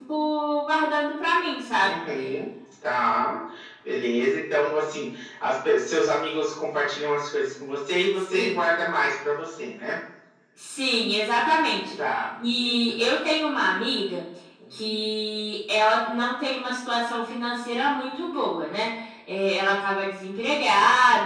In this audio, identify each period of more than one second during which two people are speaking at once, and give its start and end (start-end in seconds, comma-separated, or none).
none